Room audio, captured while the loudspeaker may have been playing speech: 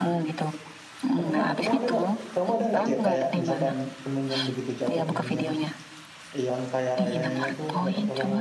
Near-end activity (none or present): present